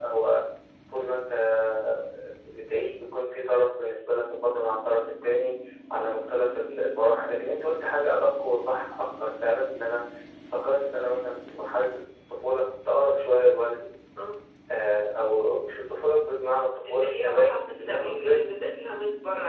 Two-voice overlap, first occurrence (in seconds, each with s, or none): 16.8 s